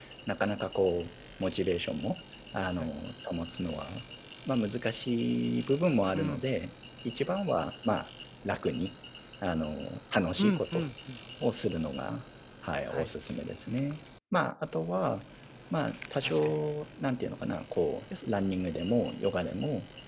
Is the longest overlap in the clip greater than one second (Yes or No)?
No